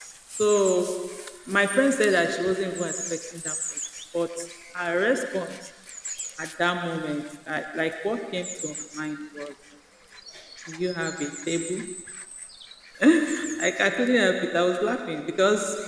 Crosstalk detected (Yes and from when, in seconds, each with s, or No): No